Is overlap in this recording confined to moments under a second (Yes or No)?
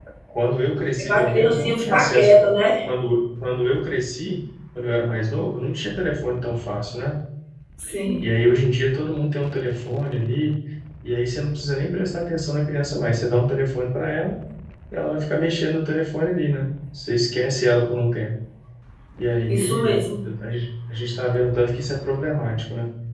No